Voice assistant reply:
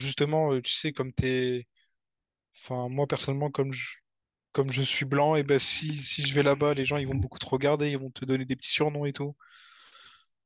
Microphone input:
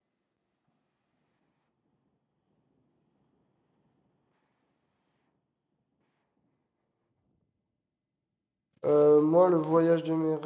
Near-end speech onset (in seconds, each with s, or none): 8.8 s